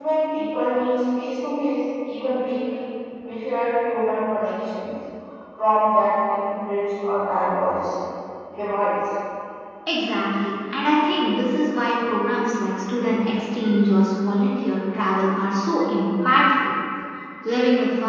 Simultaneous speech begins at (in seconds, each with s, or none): none